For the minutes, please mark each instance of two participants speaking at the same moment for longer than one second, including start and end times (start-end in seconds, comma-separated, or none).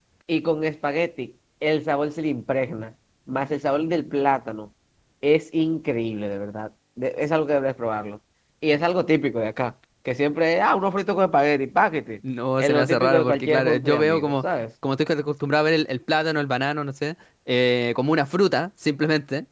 12.6-14.4